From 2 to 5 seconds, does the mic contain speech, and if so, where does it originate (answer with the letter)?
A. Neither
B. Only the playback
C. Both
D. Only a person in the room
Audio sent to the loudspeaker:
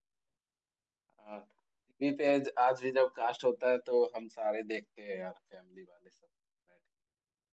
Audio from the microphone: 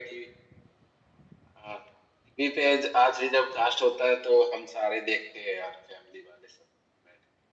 B